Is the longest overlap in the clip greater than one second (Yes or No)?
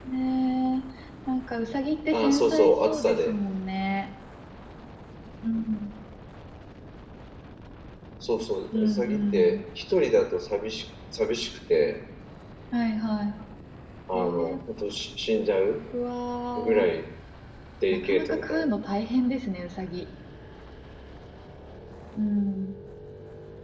Yes